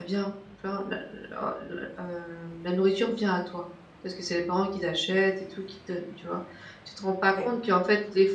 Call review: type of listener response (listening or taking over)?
listening